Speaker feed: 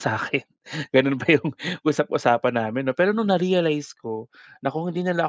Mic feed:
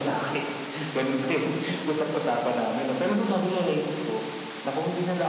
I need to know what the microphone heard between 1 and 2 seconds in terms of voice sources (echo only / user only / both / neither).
echo only